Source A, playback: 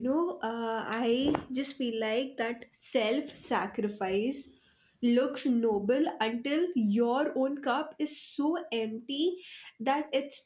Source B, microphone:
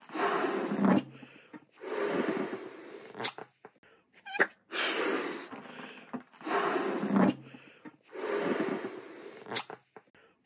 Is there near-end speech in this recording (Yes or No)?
No